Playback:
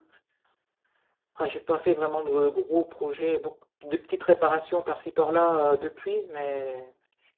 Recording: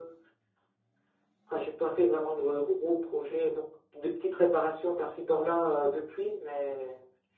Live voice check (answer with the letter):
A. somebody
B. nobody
B